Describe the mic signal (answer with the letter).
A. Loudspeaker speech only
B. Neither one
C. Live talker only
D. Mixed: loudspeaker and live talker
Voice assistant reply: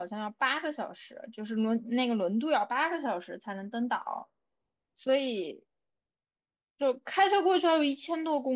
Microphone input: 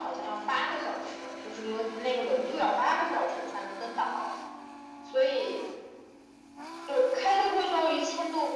A